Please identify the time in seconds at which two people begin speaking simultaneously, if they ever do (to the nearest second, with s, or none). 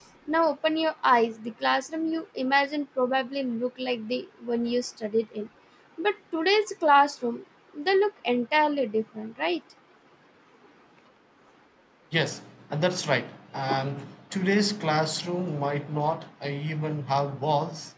none